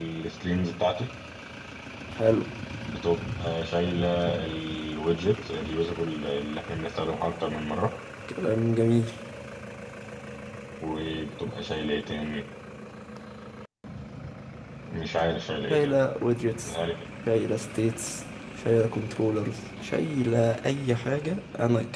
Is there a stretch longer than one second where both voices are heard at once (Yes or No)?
No